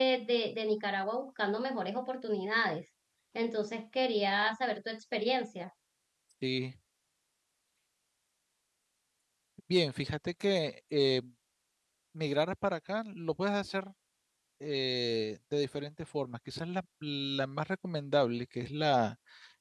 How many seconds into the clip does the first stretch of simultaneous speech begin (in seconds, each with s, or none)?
none